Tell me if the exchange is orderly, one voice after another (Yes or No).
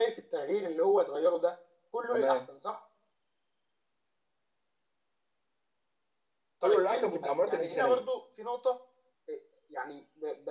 No